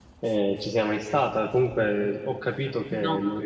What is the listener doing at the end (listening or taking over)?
listening